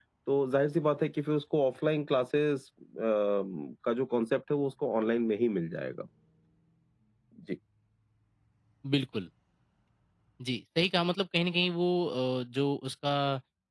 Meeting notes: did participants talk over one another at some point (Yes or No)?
No